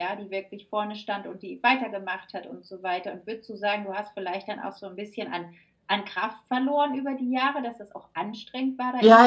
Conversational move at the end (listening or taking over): taking over